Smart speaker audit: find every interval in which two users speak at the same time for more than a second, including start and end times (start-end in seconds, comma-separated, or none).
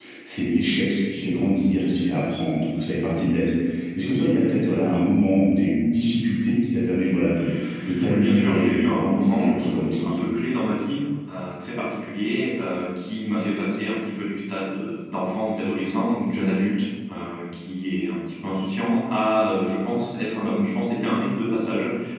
8.1-10.2